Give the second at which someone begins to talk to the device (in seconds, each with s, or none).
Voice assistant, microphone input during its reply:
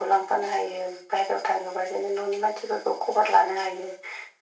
none